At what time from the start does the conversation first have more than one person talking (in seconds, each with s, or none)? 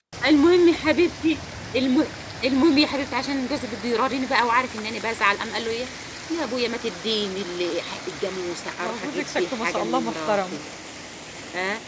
8.8 s